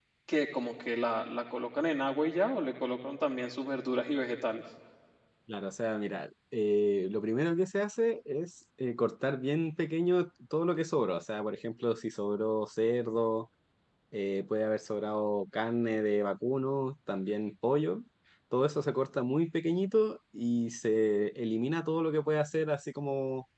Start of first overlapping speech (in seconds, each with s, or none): none